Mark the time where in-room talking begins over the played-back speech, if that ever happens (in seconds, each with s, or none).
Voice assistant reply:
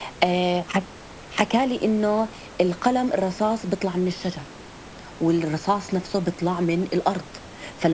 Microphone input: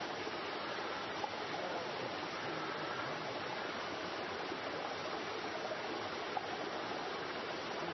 none